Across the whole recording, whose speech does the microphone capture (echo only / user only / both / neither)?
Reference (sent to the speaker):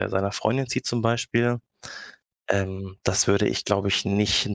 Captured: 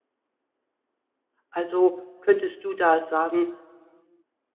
user only